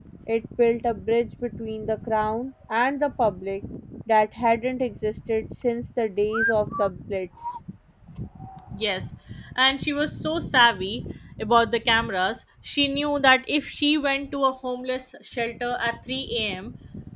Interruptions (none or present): none